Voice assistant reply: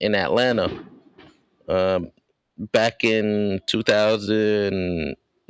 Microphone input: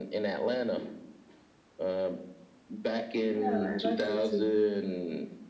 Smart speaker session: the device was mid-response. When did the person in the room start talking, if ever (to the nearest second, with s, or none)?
3 s